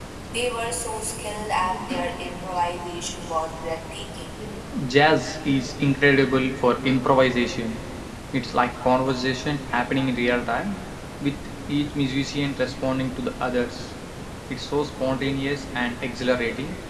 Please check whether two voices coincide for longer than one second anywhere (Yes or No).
No